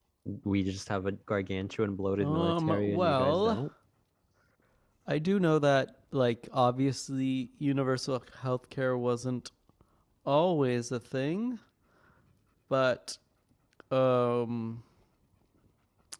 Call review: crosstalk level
present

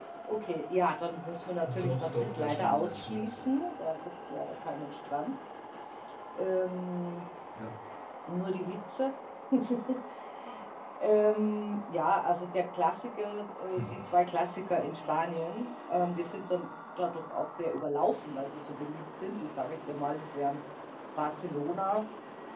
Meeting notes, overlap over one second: present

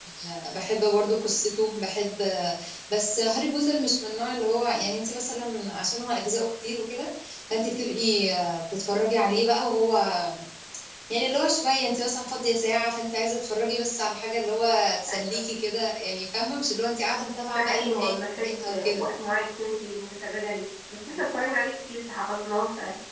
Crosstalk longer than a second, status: present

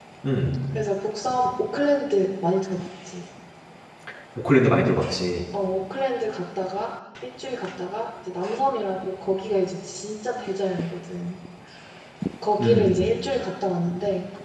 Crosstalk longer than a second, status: none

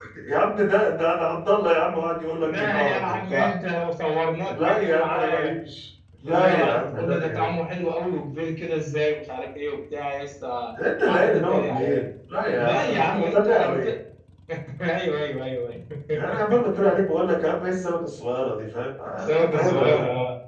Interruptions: present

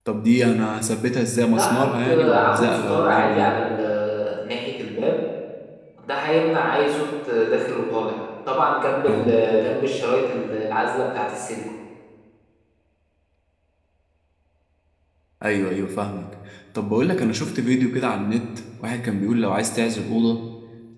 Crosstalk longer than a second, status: present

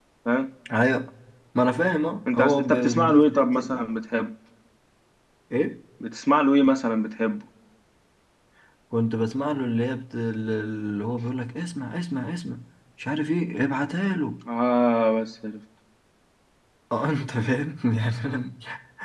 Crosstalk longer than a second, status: present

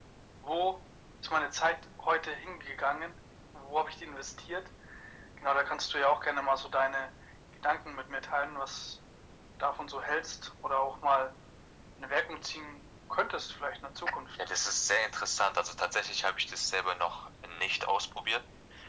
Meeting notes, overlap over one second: none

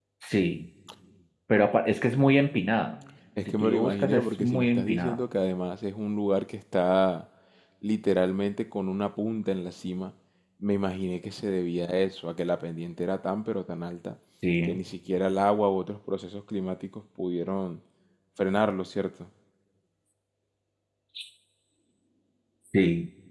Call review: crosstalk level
present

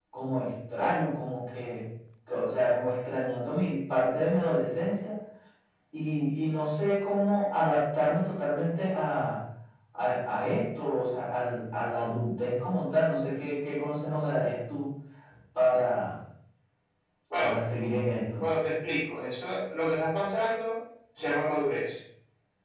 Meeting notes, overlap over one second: none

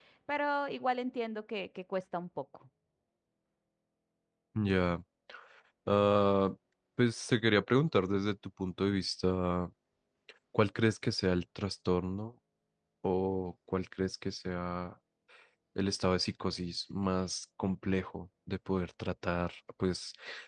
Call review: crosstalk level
none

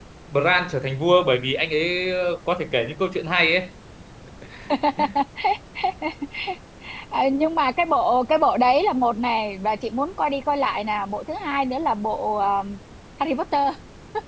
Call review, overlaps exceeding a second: none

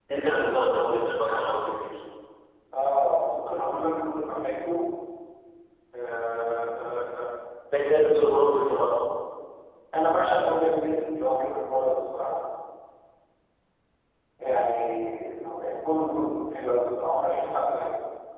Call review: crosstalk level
none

